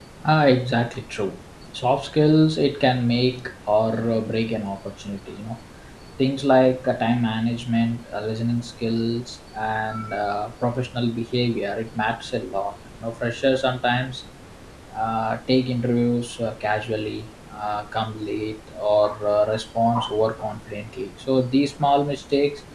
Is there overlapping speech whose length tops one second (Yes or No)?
No